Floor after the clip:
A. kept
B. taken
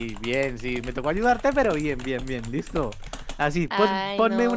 A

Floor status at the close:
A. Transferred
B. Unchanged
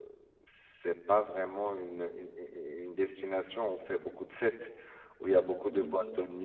B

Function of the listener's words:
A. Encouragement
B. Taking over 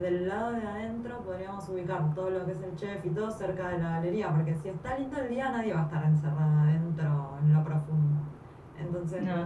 A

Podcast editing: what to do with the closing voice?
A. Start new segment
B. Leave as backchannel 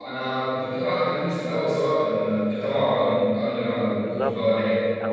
A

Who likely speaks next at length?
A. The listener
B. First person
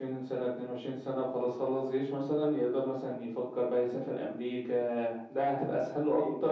A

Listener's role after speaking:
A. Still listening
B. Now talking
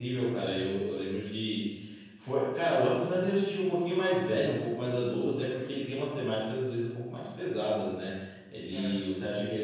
A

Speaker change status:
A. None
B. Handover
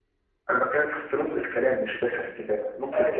B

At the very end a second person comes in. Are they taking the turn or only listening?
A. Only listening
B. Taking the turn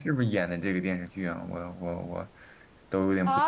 B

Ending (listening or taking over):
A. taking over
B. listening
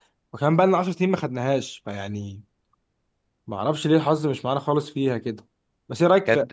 B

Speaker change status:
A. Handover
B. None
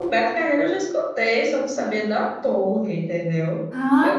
A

